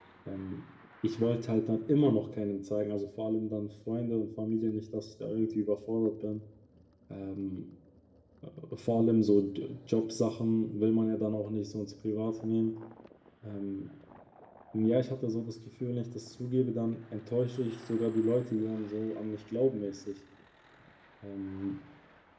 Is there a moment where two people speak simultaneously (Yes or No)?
No